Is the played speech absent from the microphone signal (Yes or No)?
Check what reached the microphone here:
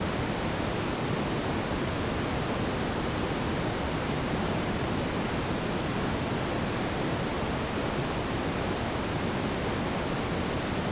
Yes